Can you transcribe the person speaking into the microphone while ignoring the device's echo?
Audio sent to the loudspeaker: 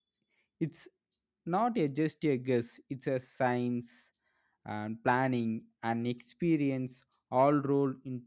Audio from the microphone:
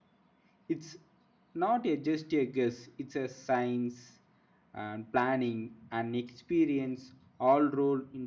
none

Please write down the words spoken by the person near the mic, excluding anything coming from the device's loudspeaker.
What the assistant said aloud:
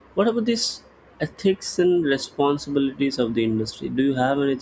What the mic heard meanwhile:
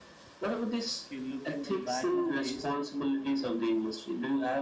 if you look in the back in the days

